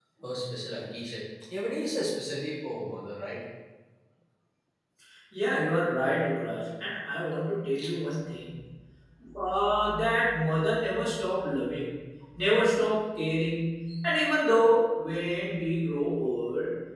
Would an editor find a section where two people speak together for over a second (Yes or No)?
No